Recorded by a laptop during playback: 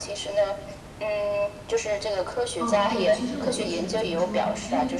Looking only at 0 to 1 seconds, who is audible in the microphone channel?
echo only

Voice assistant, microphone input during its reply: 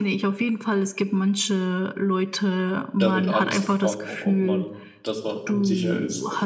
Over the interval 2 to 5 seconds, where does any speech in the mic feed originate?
both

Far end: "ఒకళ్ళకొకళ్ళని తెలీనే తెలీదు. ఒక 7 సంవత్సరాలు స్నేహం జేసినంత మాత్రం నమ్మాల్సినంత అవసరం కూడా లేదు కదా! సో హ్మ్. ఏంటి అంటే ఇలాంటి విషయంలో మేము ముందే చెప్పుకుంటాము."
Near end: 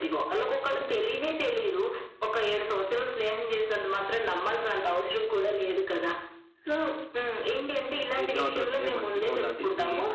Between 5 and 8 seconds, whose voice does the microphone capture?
echo only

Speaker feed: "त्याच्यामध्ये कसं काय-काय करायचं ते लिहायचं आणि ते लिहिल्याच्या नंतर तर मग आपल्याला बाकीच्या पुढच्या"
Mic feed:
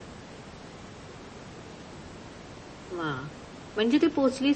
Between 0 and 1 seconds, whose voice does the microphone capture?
neither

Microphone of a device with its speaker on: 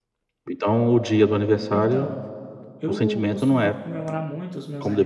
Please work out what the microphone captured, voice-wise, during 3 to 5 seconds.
both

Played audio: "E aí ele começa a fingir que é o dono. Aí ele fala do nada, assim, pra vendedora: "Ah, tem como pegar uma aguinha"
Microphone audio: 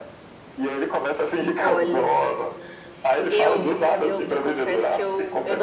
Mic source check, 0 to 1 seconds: echo only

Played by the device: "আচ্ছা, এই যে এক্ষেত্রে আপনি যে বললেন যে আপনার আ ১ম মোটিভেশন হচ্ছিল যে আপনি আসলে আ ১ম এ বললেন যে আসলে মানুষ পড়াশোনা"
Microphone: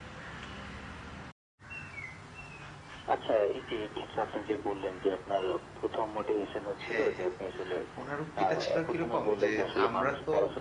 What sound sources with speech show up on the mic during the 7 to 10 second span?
both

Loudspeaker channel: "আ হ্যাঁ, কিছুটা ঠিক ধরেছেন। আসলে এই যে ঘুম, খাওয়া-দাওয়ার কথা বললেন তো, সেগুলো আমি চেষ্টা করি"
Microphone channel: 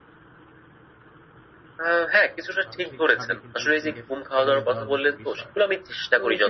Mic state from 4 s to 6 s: both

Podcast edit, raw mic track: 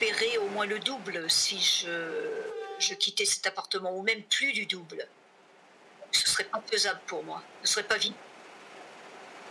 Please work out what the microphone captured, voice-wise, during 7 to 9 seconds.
echo only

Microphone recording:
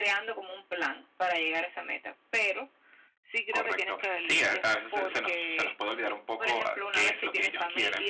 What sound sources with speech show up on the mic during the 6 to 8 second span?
both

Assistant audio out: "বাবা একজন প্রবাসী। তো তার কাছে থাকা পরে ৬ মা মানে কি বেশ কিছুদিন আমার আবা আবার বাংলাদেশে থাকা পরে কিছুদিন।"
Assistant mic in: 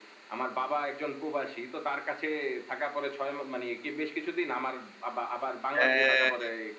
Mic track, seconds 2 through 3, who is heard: echo only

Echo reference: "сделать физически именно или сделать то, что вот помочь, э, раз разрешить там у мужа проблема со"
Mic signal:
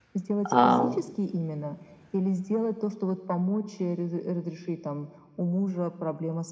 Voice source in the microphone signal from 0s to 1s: both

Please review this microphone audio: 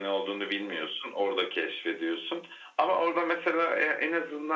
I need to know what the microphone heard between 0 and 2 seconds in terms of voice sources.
echo only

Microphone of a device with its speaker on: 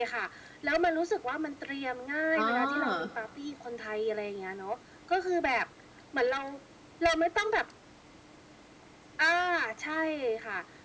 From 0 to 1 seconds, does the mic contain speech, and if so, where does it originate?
echo only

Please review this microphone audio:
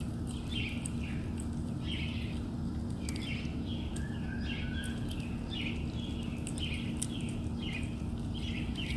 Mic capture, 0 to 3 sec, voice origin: neither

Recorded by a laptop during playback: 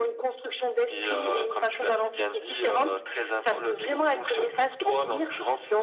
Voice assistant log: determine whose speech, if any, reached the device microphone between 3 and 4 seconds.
echo only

